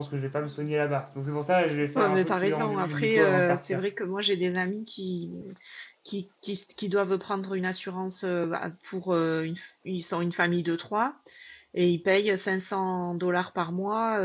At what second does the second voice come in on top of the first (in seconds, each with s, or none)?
1.9 s